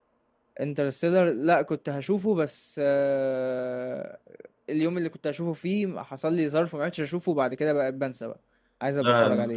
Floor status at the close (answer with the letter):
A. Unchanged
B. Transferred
B